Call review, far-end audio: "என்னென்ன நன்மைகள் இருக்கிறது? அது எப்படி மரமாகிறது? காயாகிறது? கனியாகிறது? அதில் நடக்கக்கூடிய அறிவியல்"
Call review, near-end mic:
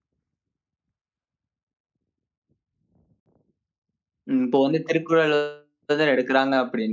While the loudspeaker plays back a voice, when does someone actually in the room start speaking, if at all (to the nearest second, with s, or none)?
4 s